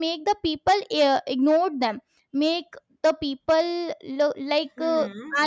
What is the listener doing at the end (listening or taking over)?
listening